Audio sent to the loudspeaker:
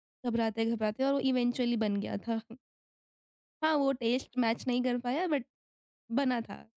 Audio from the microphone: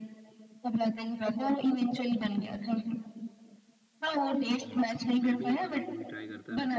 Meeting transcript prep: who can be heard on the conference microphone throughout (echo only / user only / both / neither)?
both